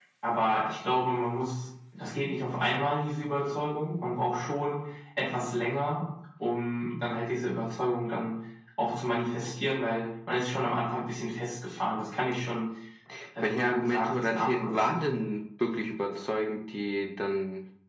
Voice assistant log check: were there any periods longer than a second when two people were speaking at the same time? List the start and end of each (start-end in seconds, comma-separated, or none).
13.4-15.0